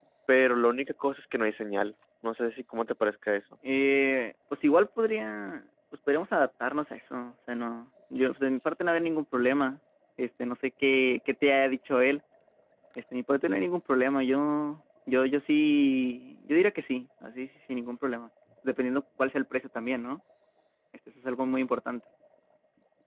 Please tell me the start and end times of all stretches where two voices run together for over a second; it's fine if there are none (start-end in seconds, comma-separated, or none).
none